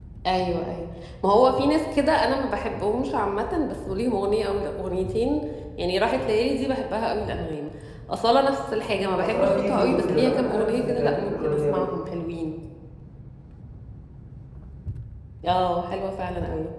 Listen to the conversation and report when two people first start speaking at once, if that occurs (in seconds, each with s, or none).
9.2 s